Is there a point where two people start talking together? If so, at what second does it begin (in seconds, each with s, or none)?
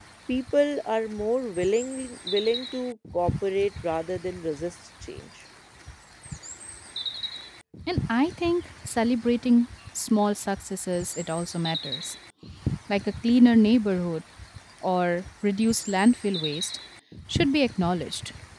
none